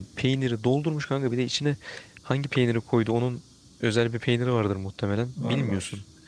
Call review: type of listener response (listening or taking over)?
listening